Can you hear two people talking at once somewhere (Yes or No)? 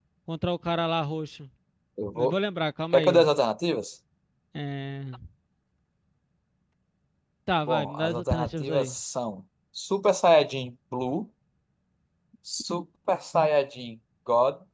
Yes